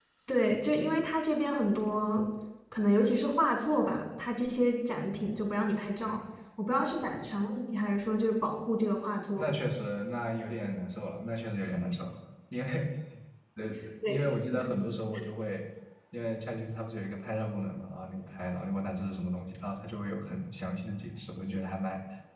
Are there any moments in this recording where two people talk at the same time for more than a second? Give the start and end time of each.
none

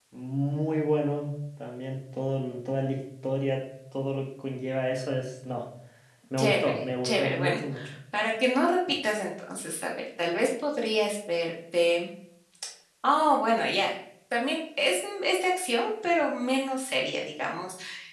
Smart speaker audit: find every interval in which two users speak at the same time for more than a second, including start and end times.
6.4-7.6

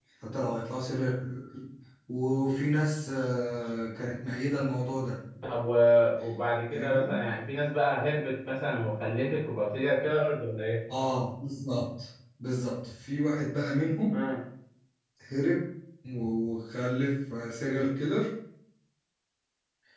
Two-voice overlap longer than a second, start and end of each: none

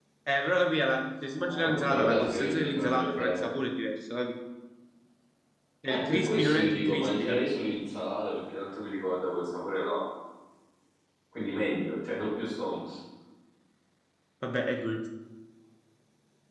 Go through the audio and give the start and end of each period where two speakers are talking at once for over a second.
1.4-3.5, 5.9-7.4

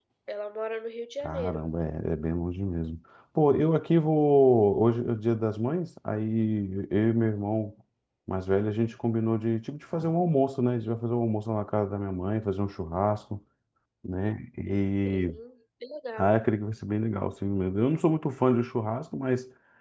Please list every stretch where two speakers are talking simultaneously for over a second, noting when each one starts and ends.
none

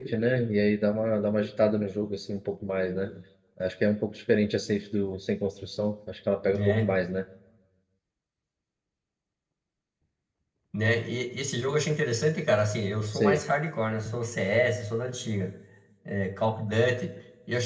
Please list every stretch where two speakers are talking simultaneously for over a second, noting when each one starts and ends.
none

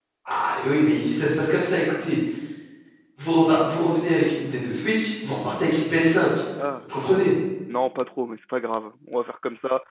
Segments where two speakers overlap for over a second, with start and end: none

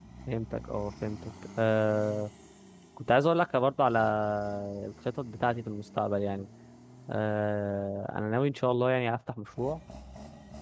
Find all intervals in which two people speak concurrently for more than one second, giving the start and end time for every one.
none

